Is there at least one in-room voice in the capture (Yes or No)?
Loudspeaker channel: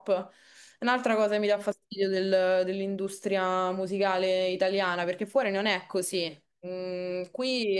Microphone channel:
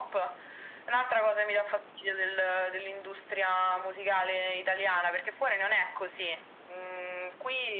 No